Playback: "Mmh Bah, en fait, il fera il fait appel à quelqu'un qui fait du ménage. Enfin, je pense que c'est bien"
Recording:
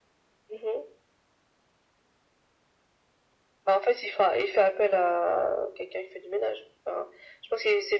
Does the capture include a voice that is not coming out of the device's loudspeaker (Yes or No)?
No